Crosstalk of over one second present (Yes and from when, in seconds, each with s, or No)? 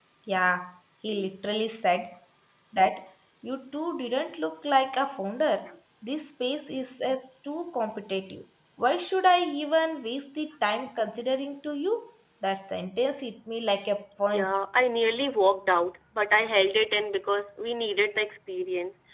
No